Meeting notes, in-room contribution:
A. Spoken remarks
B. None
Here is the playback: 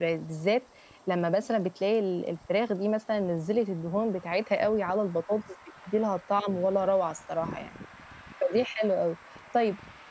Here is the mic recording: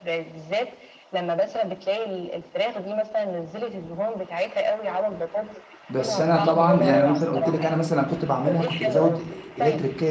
A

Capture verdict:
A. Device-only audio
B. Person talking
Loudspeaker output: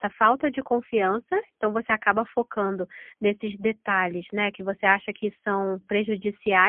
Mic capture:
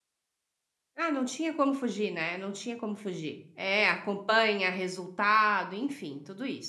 B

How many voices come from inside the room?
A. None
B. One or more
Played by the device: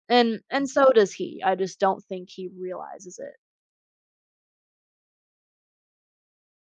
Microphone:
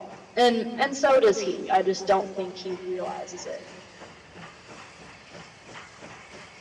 A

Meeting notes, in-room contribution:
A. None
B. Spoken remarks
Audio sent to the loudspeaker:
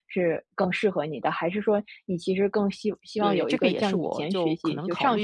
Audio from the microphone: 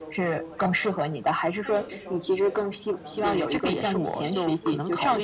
B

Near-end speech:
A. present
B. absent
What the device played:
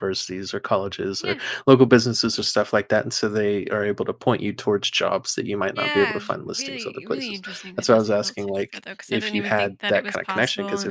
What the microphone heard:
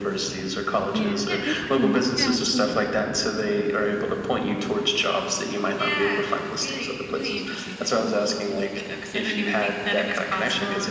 A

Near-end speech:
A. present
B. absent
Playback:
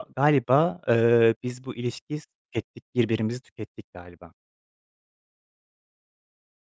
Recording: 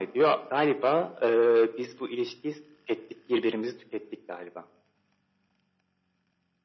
B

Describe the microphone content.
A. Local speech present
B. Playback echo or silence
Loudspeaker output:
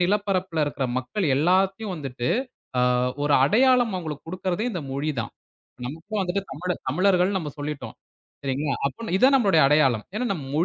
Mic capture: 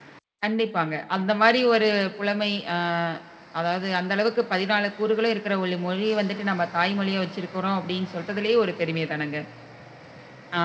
A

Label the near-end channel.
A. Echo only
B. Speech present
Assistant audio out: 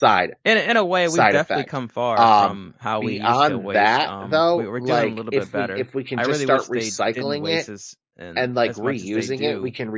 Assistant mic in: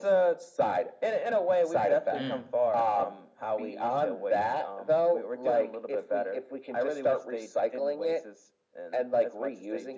B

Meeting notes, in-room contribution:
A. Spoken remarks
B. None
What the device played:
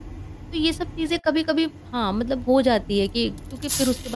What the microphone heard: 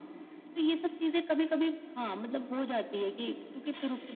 B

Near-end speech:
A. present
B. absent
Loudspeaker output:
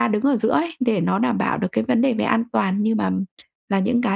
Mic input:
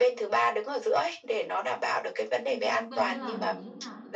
A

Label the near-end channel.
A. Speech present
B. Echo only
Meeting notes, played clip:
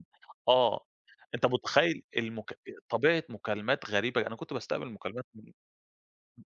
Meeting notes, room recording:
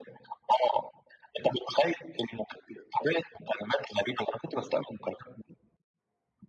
B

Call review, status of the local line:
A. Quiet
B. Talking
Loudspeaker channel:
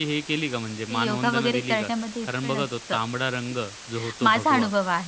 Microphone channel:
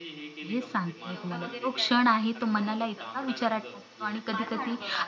B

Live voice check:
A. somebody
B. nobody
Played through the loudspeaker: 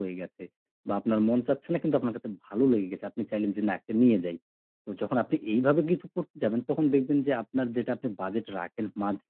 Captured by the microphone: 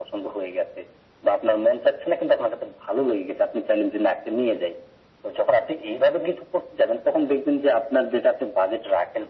B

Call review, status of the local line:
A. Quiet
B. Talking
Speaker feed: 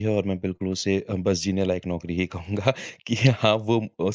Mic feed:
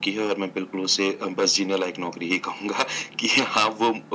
A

